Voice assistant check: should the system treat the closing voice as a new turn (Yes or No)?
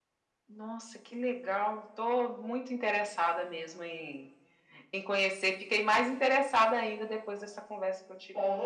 Yes